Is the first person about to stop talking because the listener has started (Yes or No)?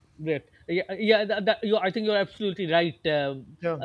No